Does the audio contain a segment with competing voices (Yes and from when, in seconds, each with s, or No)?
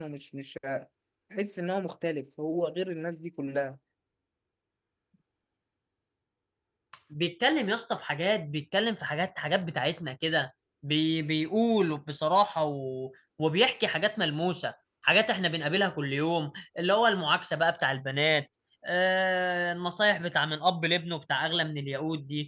No